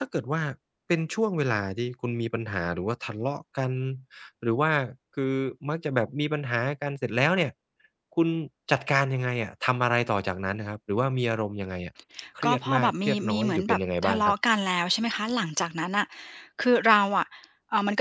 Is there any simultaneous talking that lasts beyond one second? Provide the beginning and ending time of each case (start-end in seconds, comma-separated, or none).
12.4-14.3